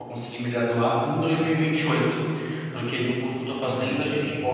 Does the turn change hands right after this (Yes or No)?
No